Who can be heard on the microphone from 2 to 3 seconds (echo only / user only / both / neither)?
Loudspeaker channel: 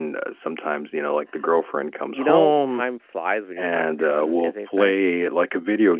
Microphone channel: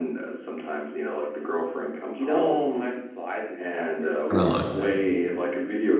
echo only